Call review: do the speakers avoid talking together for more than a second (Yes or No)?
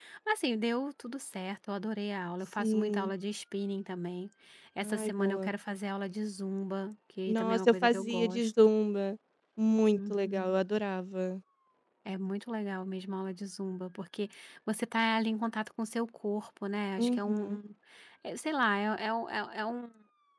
No